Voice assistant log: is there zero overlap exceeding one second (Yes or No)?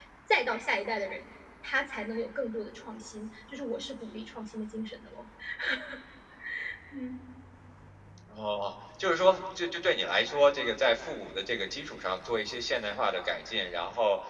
Yes